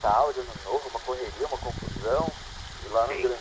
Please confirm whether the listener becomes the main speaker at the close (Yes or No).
No